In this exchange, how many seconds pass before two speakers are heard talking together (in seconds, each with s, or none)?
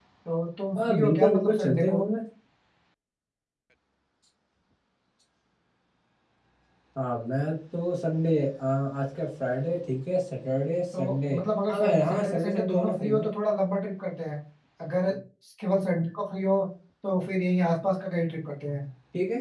0.8 s